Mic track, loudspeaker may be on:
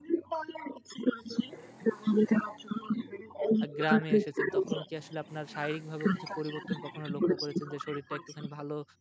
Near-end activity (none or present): present